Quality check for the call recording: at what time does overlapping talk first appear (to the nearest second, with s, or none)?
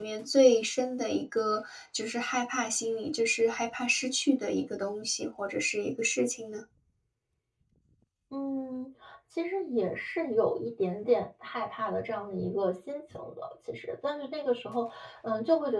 none